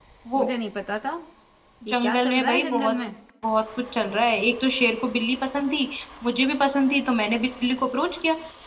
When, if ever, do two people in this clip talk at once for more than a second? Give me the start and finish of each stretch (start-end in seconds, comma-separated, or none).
1.9-3.1